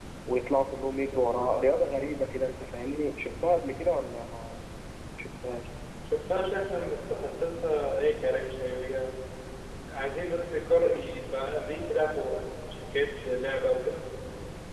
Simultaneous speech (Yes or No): No